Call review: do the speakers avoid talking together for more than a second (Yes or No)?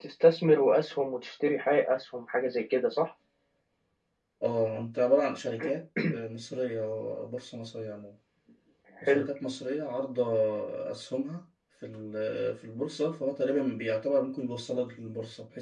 Yes